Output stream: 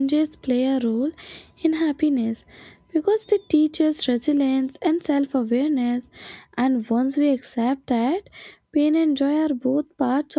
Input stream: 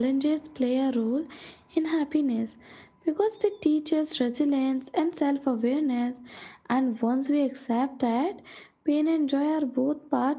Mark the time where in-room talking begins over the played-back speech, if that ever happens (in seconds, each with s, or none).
none